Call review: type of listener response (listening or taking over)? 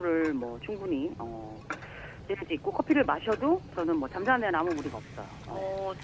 listening